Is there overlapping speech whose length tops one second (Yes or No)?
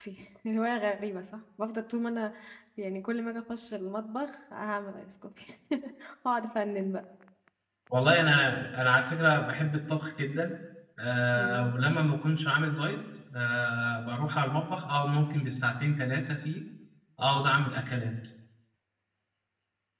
No